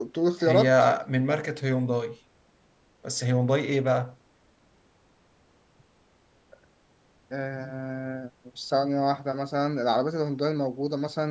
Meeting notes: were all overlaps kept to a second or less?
Yes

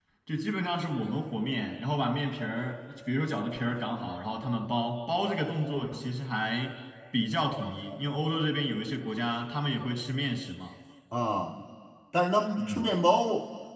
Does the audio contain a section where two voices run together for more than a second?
No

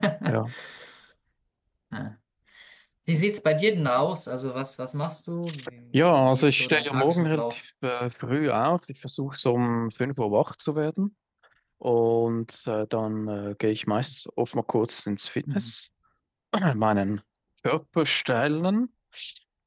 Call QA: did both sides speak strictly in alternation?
No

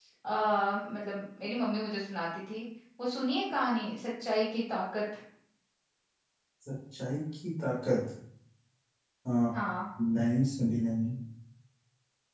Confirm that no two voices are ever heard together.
Yes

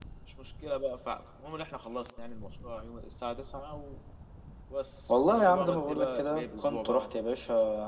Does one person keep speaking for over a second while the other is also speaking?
Yes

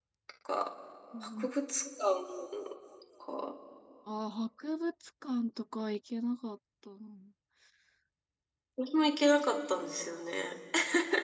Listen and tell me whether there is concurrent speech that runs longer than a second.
No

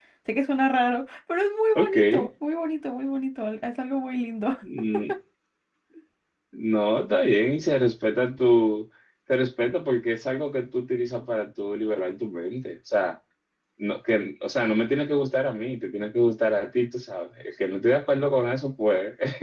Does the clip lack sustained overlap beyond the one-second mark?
Yes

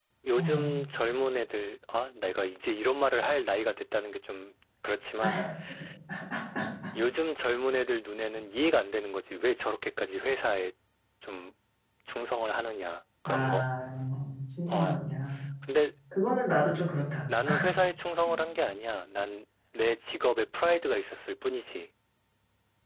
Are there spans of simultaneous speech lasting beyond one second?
No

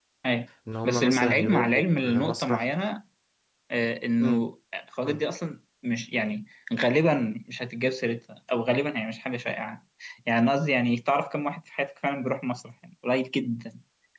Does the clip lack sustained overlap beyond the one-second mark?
No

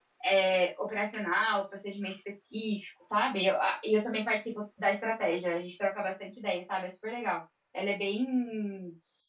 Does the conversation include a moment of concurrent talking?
No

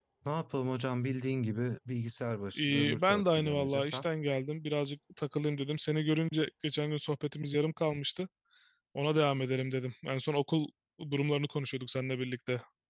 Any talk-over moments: Yes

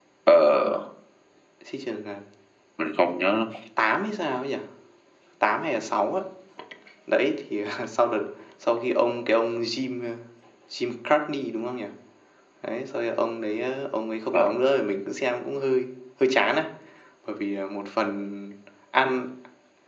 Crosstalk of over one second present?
No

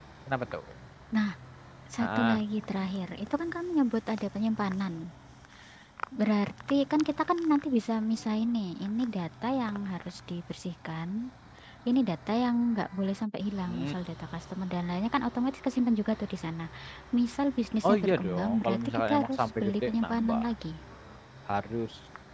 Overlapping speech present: Yes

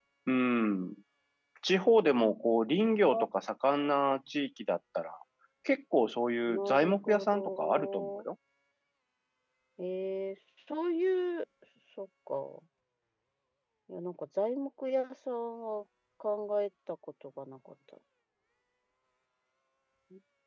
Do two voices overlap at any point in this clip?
Yes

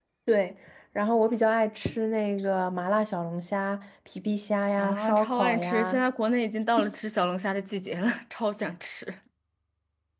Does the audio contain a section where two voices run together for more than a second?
Yes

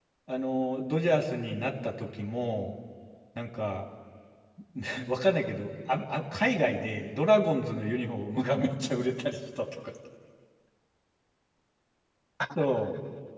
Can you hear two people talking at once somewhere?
No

